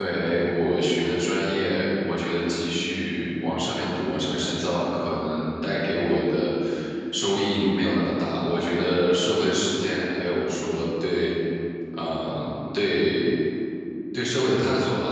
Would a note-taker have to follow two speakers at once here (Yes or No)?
No